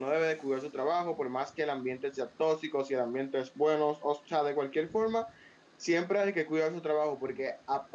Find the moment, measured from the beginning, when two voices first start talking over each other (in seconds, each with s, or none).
none